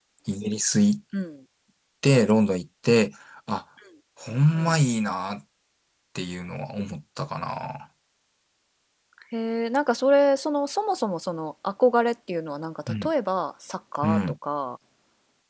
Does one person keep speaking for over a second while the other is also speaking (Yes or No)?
No